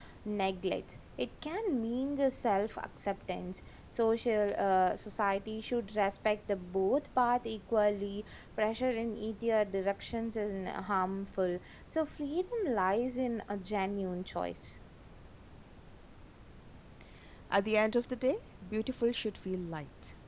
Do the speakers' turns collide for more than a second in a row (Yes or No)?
No